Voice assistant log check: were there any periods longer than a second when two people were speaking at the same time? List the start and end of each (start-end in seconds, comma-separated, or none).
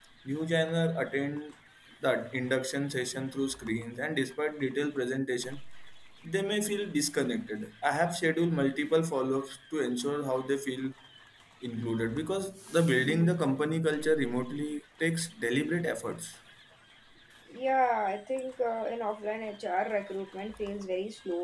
none